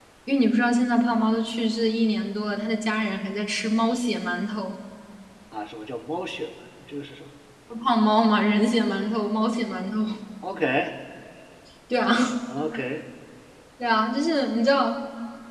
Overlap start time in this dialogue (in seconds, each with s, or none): none